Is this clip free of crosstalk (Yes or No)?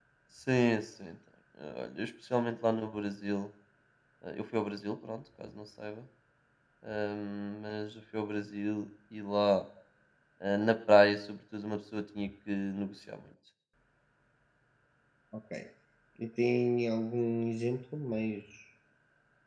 Yes